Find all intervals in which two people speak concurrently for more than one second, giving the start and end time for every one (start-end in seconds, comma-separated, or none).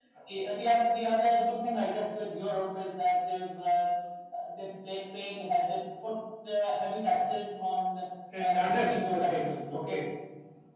8.4-10.0